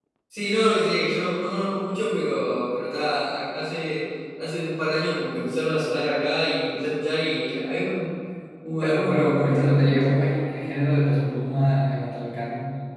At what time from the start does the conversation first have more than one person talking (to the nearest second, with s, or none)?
9 s